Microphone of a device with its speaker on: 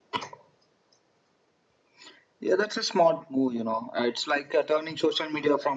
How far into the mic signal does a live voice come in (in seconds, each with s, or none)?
none